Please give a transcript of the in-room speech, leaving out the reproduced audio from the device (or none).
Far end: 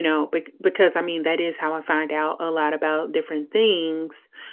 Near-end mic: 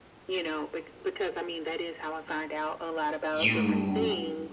you